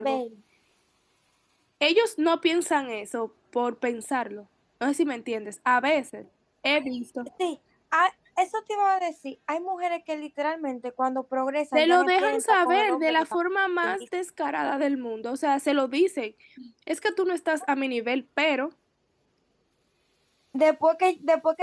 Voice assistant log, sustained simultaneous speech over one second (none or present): present